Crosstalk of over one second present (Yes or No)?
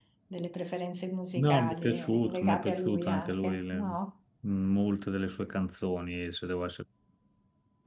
Yes